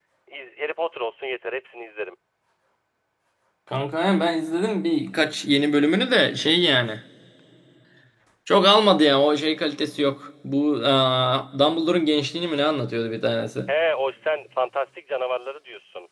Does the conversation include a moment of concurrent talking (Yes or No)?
No